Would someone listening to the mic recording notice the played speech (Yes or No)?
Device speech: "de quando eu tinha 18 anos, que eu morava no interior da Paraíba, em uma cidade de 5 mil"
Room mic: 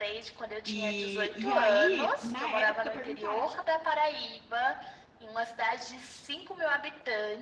Yes